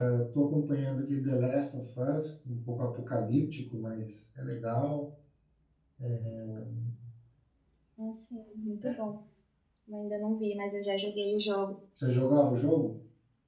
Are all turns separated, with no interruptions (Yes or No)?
Yes